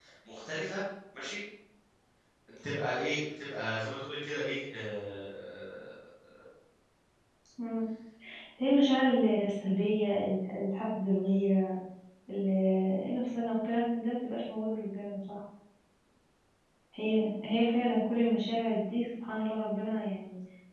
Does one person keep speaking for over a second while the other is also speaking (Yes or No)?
No